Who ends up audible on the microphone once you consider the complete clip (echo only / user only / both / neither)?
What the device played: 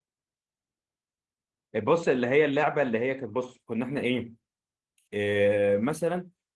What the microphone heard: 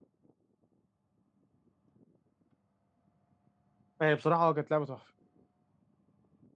user only